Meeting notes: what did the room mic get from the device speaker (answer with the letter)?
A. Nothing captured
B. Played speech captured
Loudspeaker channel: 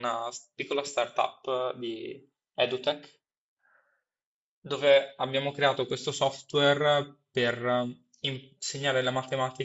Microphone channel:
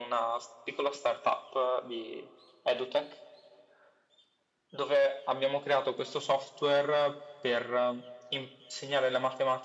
B